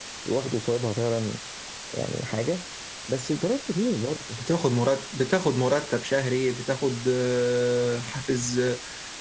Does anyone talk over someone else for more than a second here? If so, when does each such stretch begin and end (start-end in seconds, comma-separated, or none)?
none